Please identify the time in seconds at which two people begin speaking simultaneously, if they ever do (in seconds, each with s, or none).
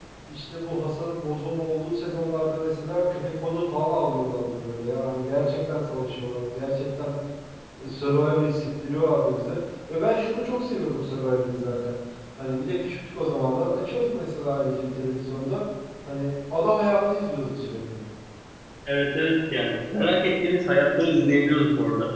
none